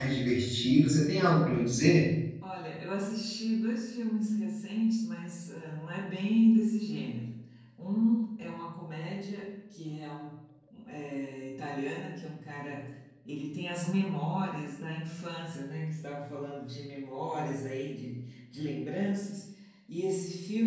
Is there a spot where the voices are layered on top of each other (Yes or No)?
No